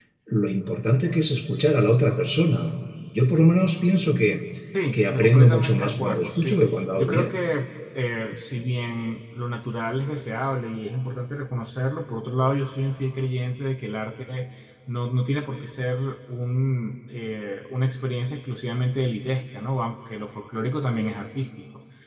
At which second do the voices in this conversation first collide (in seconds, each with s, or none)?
4.9 s